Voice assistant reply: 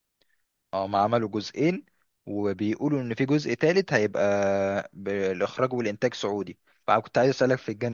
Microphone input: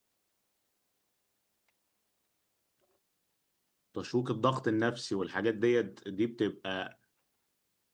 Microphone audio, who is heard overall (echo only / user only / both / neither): user only